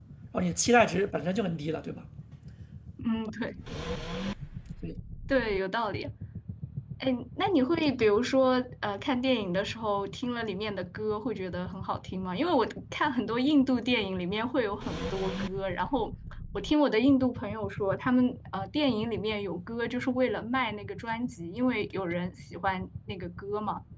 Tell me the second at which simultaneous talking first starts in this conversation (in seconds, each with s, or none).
none